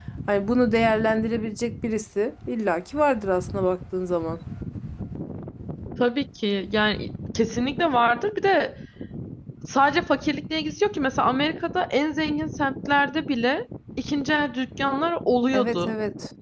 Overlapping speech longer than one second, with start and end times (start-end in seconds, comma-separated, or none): none